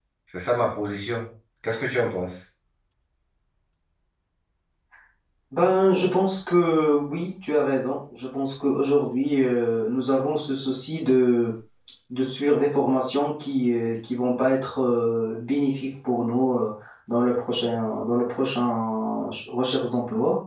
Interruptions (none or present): none